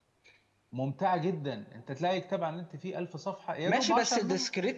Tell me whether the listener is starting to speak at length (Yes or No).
Yes